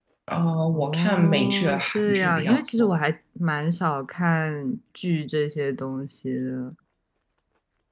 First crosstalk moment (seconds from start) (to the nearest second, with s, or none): 1 s